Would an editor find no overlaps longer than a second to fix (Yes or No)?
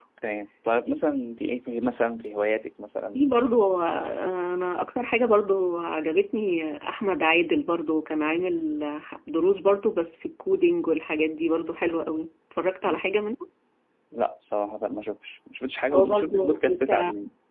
No